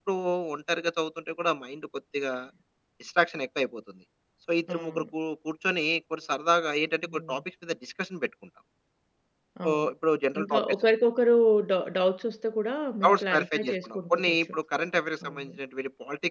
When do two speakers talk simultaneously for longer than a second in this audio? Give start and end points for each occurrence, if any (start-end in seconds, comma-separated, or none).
13.0-14.5